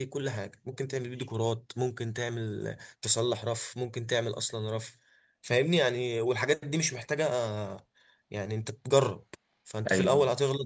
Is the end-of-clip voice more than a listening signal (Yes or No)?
No